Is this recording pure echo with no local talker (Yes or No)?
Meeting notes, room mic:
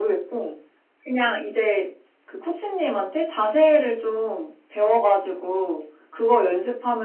Yes